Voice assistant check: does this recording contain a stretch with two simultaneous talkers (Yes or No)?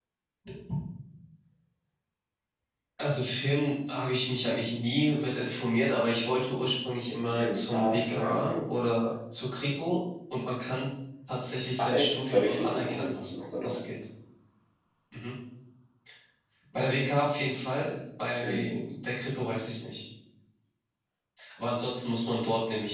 Yes